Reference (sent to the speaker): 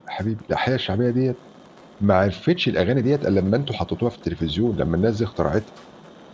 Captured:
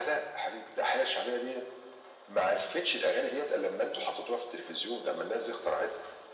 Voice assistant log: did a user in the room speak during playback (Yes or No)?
No